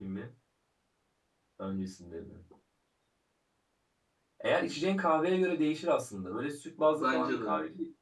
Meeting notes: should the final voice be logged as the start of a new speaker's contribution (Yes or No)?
No